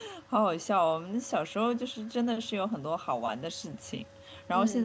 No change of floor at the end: Yes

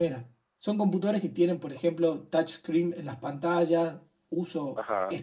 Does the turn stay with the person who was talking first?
Yes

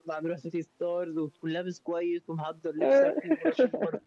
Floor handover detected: No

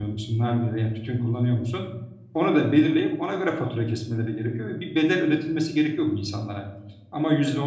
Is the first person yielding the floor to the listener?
No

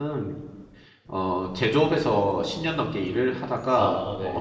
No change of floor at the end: Yes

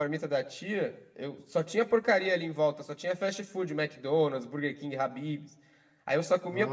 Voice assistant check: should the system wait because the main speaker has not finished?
Yes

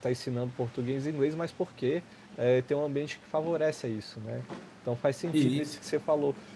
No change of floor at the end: Yes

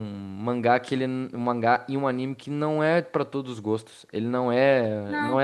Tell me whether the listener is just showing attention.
No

